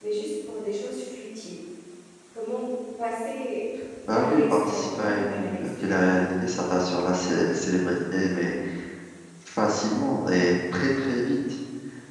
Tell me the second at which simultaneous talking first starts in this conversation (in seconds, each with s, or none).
4.1 s